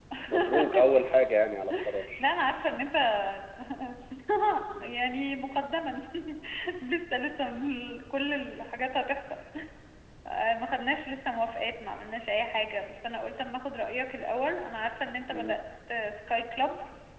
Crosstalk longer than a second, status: none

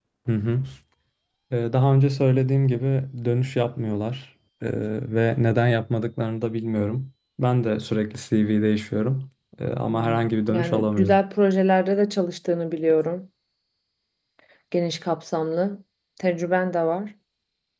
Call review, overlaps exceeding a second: present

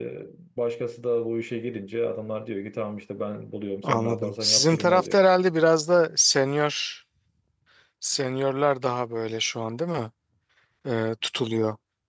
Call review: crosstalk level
present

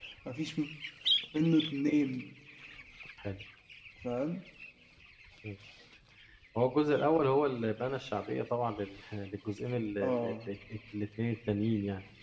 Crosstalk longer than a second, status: none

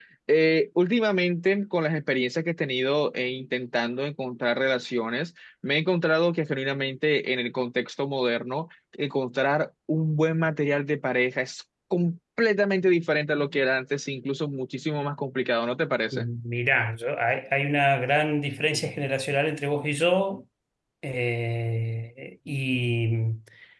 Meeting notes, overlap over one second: none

